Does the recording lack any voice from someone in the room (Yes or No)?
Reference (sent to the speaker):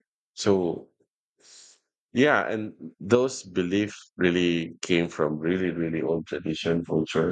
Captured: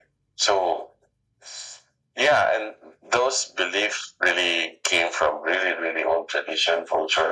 Yes